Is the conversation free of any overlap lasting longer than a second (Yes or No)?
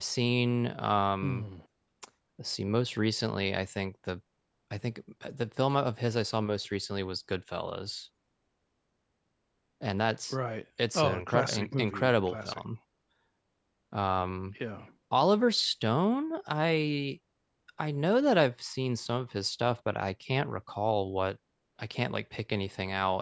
No